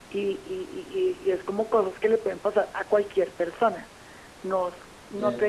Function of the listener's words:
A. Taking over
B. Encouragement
B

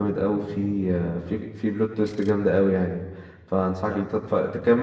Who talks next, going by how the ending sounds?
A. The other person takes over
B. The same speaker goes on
B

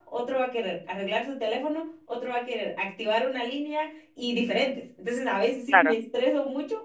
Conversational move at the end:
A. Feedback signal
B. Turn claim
A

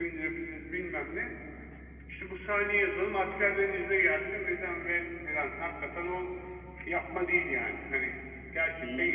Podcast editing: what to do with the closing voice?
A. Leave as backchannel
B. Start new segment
B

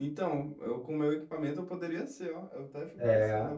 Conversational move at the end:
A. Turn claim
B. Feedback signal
B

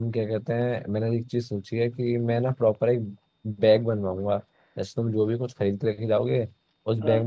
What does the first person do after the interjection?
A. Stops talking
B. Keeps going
B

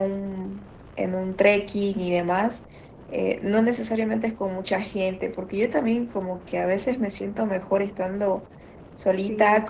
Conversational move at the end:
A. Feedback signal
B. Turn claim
A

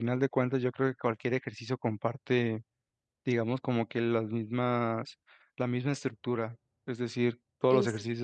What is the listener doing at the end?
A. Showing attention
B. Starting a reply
A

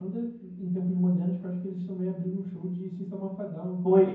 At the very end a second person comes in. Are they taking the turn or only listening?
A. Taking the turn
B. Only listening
A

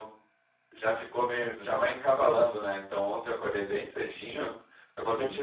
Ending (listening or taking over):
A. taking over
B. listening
B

